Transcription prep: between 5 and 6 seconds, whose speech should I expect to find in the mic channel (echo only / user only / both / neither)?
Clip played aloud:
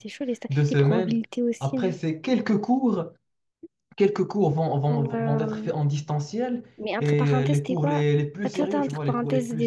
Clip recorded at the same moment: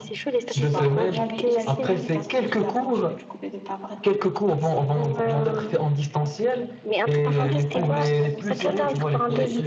both